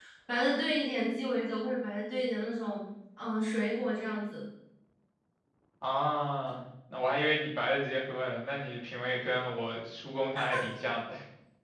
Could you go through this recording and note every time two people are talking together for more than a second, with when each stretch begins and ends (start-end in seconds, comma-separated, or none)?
none